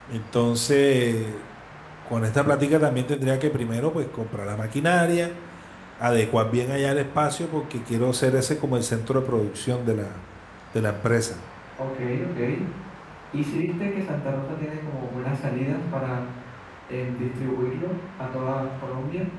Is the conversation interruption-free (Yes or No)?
Yes